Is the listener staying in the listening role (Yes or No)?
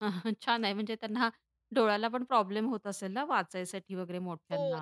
No